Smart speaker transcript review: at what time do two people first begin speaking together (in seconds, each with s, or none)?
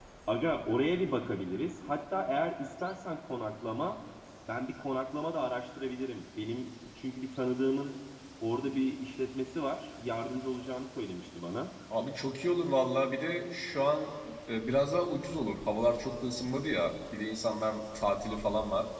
none